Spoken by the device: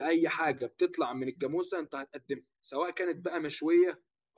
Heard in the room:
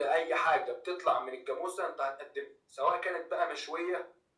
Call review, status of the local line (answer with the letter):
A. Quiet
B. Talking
A